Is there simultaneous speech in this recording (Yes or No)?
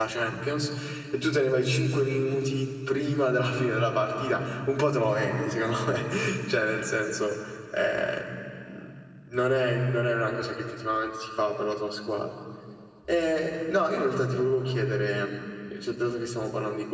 No